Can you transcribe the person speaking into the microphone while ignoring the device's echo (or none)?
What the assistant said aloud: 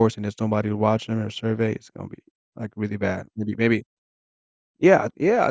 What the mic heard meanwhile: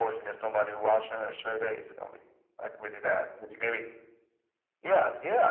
none